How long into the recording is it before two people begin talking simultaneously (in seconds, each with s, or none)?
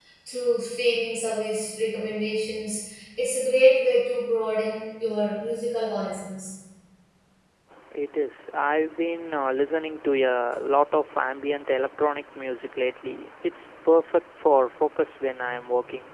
none